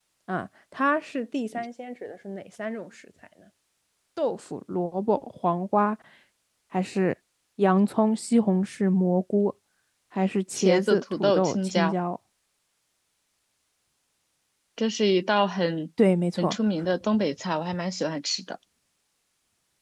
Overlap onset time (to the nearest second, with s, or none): 11 s